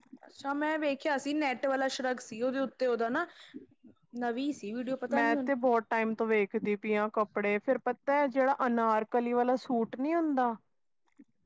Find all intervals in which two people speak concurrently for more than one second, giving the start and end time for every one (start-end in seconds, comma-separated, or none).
none